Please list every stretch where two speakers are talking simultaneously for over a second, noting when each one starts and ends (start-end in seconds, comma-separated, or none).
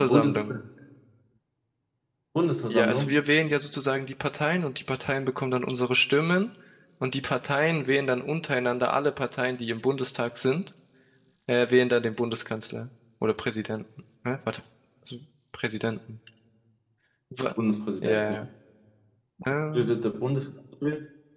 none